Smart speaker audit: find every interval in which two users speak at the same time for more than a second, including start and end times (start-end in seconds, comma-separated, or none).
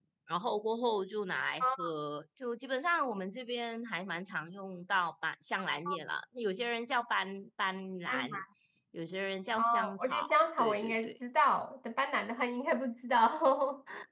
9.6-11.1